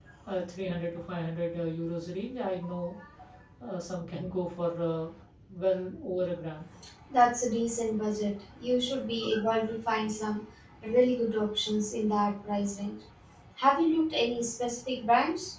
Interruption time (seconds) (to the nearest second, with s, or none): none